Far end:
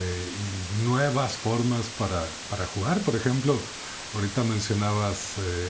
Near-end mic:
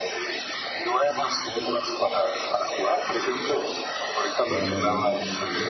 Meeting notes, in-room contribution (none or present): present